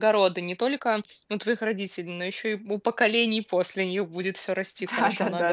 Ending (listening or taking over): taking over